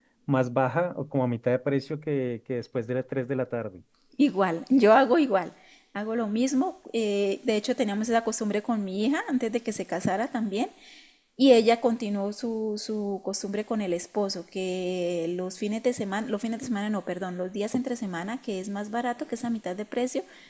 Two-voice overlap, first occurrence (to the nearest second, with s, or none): none